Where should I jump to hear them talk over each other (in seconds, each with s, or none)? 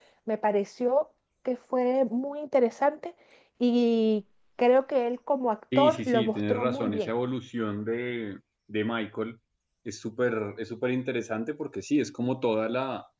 5.7 s